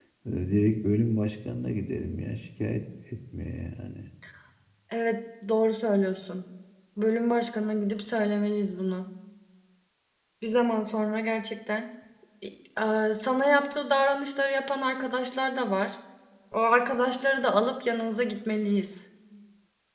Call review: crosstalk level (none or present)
none